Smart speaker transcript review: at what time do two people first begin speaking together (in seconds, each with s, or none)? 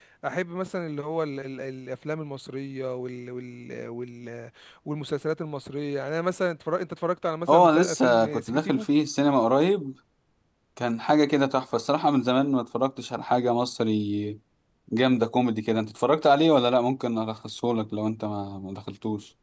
7.5 s